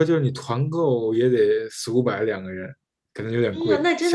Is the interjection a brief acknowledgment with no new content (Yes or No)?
No